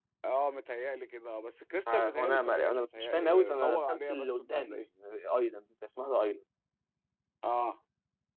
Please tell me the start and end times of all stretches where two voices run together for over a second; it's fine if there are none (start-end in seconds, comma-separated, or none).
1.9-4.8